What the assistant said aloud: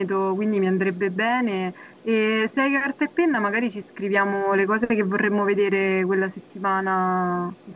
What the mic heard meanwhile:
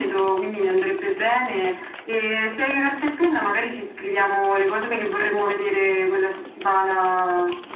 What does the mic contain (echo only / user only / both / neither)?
echo only